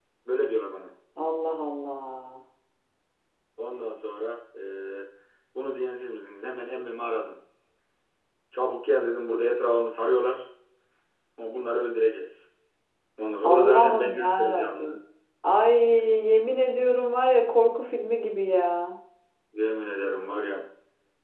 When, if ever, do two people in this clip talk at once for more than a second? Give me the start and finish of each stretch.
13.4-15.0

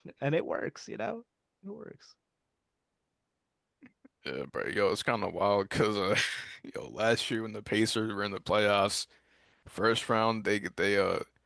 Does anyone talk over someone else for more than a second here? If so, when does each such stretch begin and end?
none

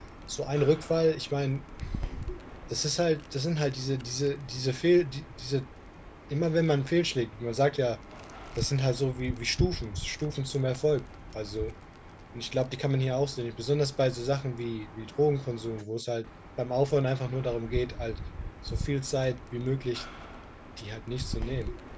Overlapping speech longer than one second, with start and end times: none

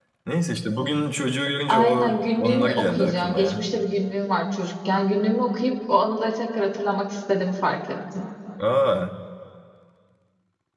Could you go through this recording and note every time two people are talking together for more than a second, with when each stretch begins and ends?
1.7-3.7

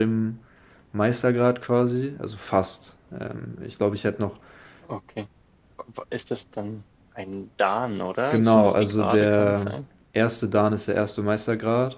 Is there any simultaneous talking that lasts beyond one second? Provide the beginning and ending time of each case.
8.3-9.7

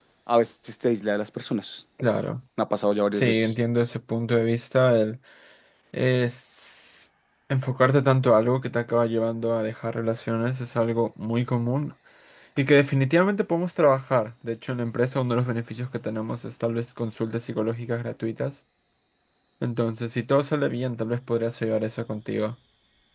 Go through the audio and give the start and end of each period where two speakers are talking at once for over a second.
none

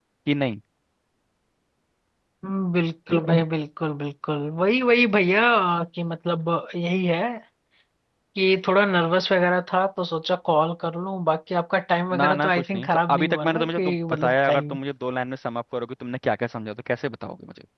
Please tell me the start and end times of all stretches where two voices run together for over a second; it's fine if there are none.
12.2-14.8

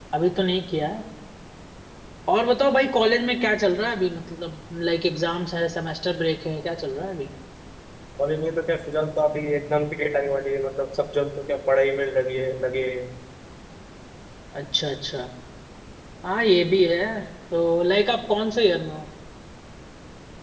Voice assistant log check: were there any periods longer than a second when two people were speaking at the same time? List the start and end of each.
none

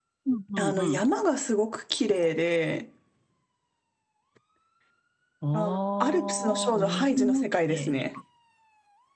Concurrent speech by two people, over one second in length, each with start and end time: 5.5-8.0

